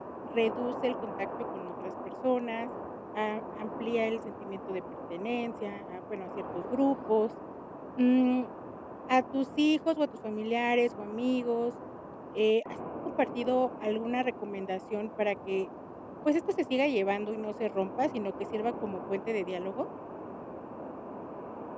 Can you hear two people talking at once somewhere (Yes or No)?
No